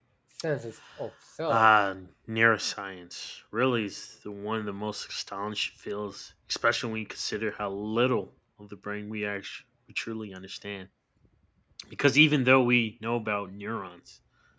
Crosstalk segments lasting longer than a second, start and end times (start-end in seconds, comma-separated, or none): none